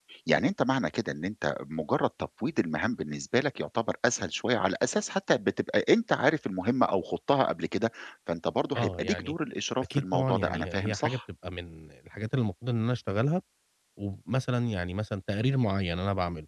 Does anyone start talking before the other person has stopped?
Yes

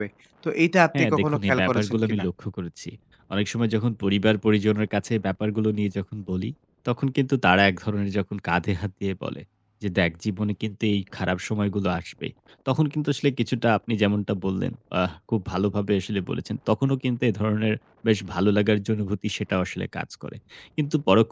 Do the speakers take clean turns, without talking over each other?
No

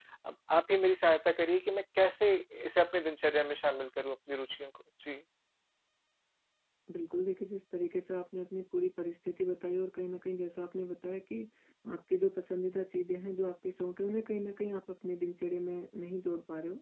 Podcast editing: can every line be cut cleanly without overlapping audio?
Yes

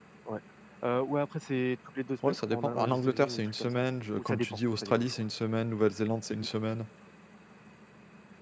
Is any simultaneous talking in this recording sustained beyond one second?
Yes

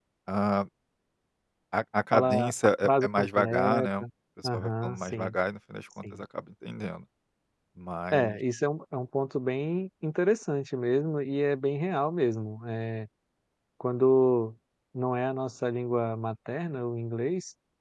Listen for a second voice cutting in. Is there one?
Yes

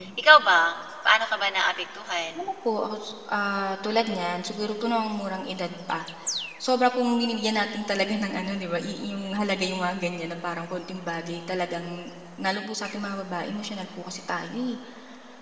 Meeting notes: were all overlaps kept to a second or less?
Yes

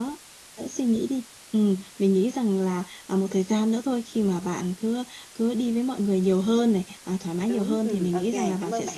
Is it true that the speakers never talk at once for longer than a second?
No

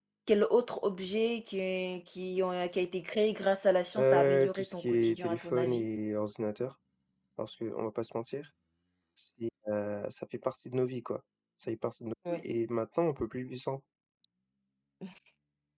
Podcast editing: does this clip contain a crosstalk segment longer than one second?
Yes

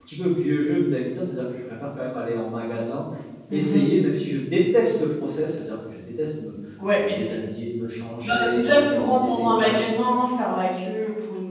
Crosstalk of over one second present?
Yes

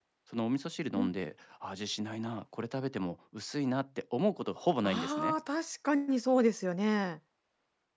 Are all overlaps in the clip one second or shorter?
Yes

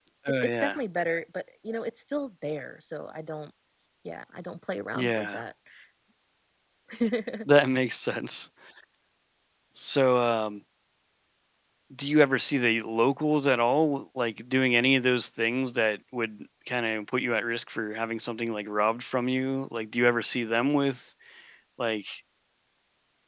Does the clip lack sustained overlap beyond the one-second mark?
Yes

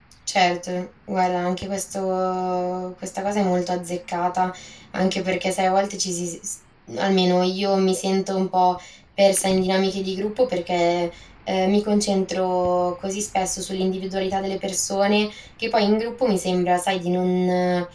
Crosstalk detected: No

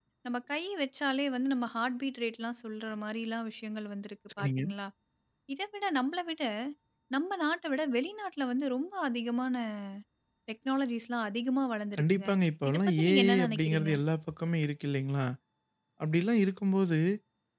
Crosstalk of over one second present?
Yes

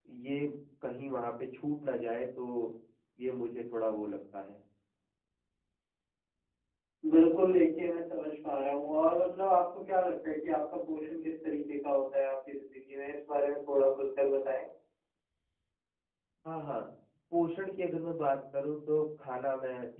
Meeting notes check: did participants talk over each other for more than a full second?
No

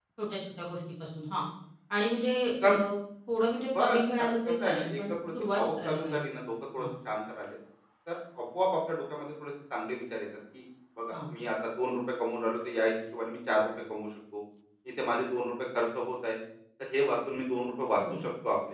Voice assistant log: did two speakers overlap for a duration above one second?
Yes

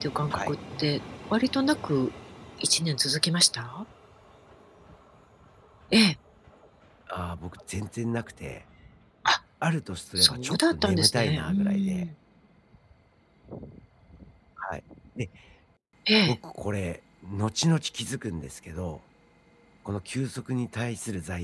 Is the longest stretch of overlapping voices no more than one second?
No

